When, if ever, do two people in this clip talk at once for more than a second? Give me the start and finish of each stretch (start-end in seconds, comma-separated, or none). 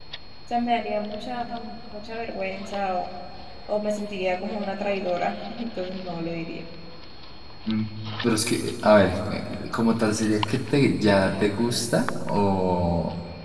none